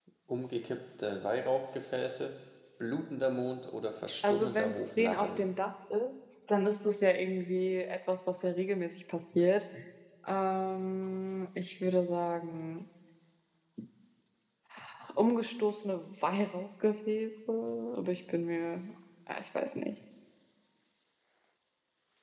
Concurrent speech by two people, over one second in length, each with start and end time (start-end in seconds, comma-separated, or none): 4.2-5.5